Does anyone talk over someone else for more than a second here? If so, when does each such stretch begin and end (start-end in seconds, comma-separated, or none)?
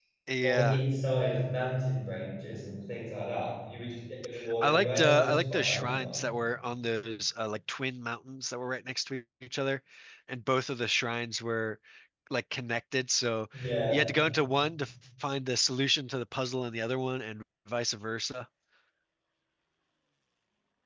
4.6-6.2